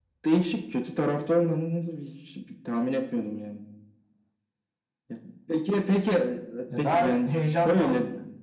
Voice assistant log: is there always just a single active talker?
No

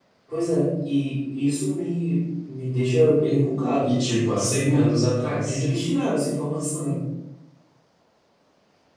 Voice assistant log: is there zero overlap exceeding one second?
Yes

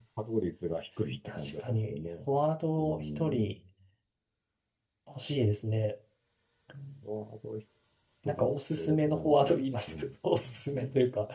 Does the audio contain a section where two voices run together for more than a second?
Yes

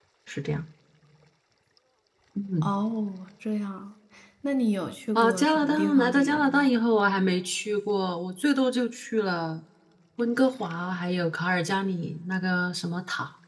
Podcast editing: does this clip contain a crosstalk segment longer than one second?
Yes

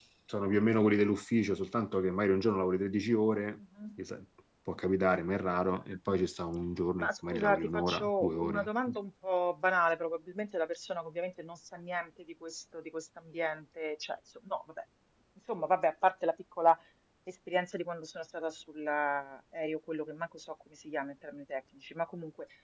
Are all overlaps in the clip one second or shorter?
No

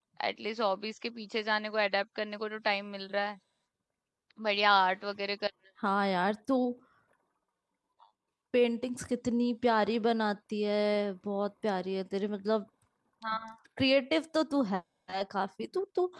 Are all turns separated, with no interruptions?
Yes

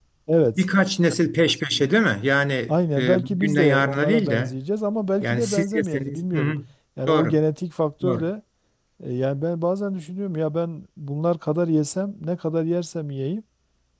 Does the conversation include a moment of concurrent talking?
Yes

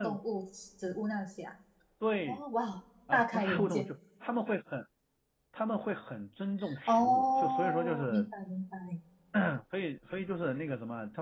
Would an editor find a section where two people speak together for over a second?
Yes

